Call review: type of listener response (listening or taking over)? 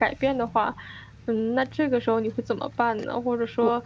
listening